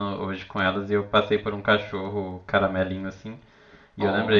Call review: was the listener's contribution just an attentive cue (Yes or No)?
Yes